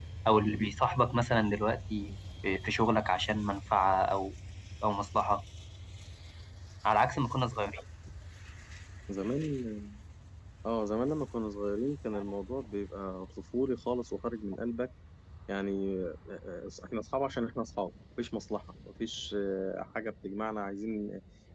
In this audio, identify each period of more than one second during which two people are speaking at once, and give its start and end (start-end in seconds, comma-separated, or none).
none